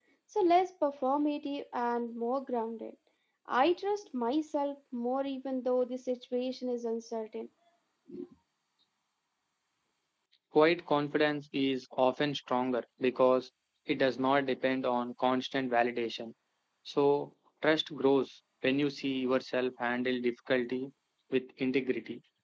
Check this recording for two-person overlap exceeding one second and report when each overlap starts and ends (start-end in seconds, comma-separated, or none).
none